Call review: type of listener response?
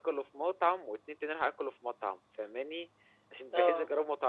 listening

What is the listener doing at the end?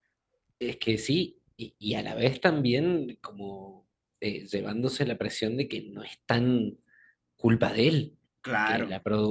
listening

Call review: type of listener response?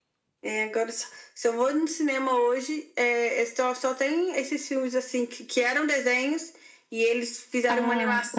listening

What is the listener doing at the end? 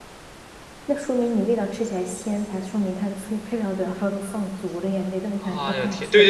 taking over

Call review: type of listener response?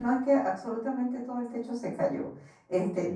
listening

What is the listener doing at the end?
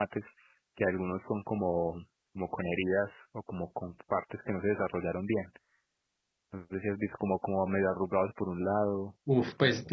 taking over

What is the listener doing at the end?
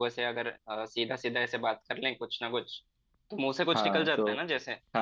taking over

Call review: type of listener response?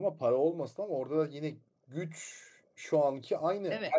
listening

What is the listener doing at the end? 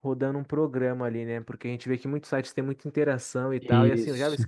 listening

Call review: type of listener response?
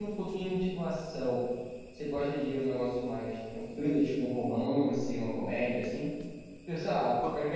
listening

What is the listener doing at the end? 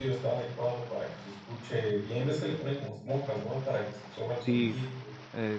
taking over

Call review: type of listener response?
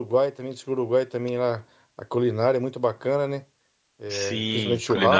taking over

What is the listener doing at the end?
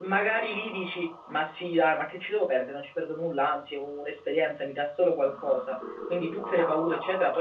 listening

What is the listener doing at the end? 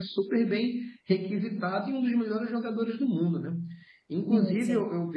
listening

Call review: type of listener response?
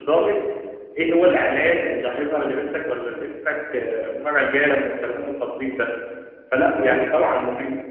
listening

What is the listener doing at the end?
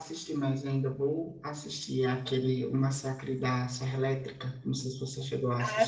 taking over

